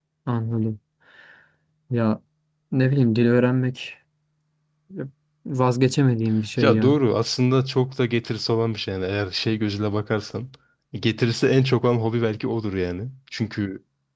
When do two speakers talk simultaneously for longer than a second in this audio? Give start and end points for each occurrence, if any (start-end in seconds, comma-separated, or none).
none